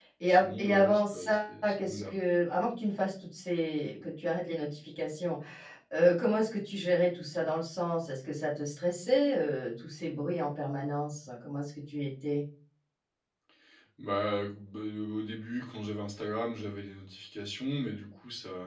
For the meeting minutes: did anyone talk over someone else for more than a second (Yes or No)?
Yes